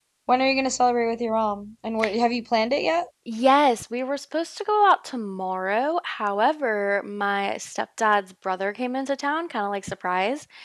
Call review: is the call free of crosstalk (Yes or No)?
Yes